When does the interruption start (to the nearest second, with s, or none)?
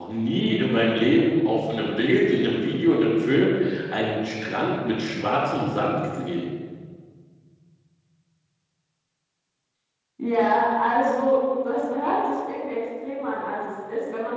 none